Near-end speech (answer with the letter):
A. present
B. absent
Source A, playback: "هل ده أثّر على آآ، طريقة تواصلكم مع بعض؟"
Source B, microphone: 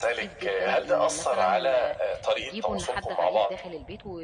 A